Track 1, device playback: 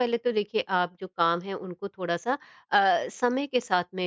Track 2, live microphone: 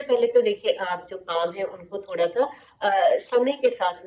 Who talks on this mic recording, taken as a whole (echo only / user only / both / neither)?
echo only